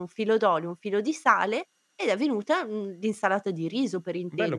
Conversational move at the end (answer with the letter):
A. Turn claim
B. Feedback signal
A